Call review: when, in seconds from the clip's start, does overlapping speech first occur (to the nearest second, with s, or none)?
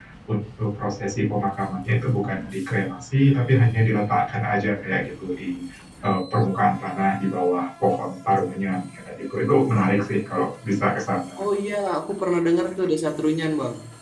none